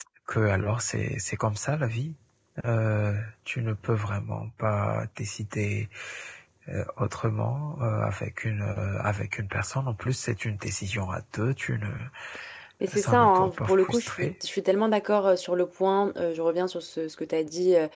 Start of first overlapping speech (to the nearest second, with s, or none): 13 s